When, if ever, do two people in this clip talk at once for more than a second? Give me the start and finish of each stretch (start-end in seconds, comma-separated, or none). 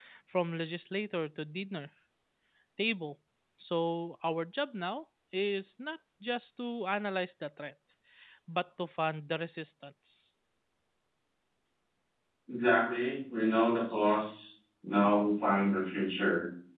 none